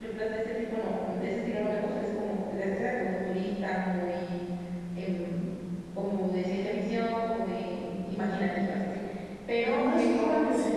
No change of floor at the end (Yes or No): No